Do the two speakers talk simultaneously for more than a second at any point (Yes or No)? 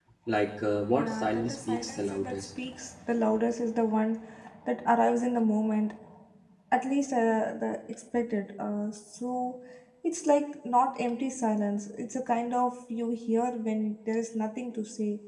Yes